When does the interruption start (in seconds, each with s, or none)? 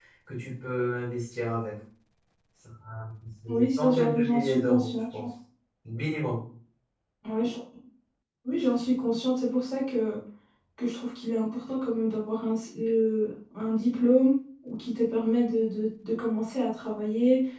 3.5 s